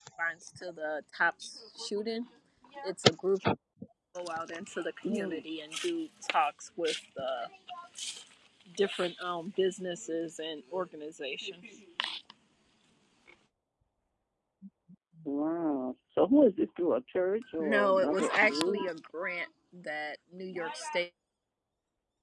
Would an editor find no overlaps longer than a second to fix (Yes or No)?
No